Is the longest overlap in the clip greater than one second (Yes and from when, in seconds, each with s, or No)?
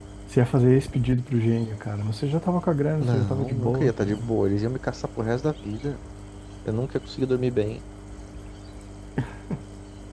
Yes, from 3.0 s